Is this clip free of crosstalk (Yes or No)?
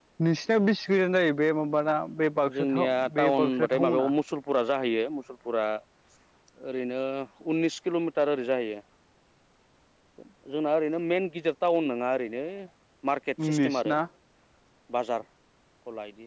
No